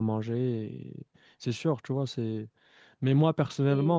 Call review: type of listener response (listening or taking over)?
listening